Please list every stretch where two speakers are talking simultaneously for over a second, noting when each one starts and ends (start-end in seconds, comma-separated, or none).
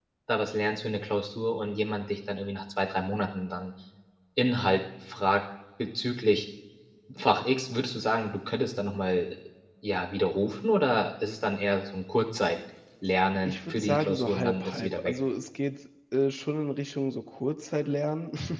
13.4-15.1